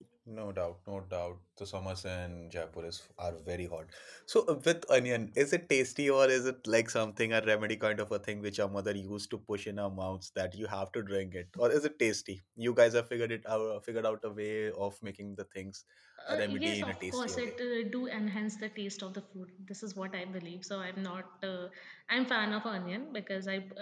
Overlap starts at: 16.3 s

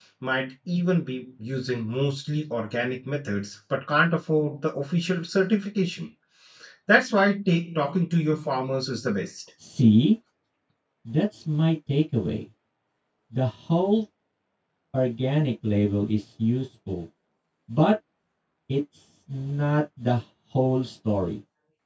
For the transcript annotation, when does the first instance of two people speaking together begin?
none

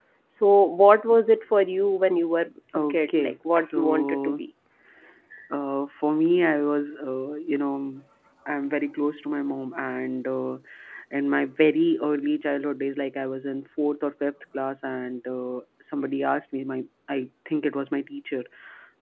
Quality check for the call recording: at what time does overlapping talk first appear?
2.7 s

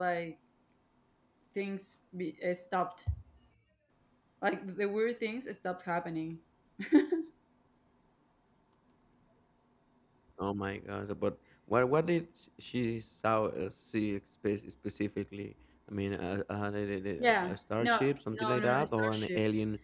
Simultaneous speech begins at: 17.2 s

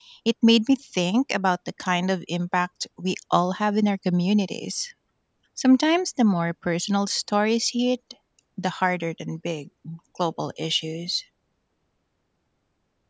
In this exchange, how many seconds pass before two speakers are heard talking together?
none

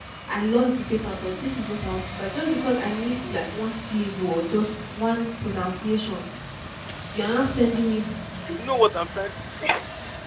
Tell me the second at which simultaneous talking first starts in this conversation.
none

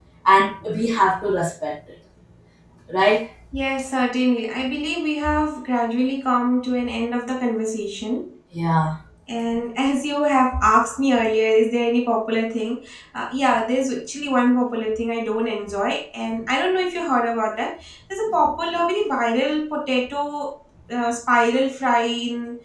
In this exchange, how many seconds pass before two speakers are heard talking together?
none

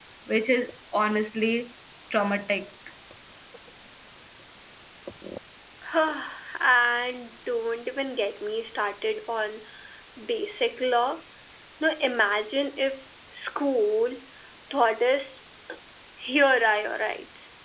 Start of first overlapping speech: none

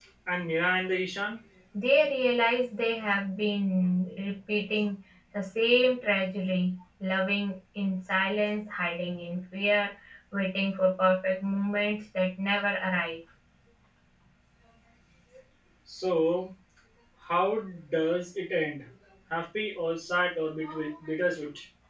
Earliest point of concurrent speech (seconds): none

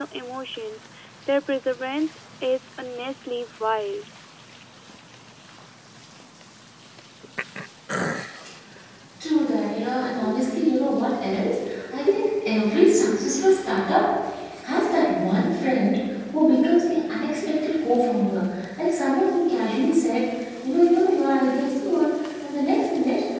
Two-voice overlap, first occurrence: none

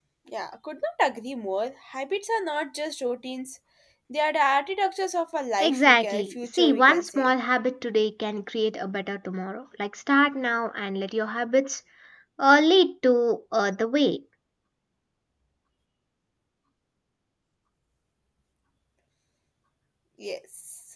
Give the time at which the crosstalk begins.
5.6 s

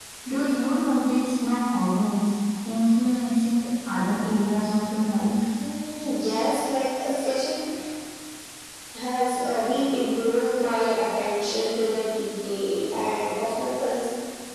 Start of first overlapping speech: none

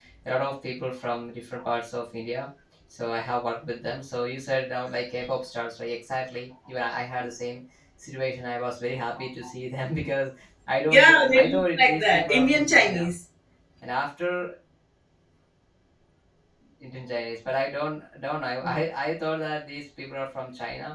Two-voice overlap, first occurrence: 10.9 s

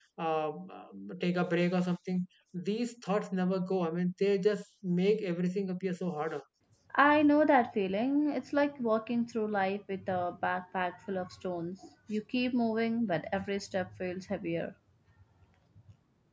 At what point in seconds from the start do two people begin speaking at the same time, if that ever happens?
none

